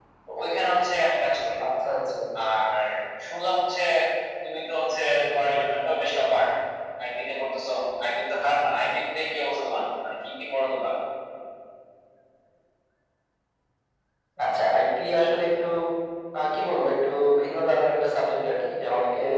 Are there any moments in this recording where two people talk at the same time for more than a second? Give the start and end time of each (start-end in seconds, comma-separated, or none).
none